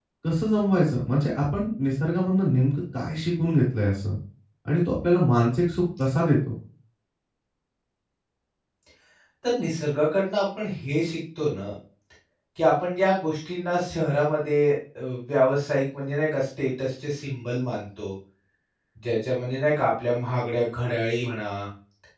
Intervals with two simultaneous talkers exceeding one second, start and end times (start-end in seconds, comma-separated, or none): none